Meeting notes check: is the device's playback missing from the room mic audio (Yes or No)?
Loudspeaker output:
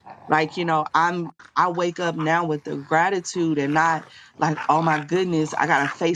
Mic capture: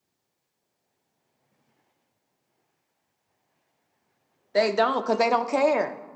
Yes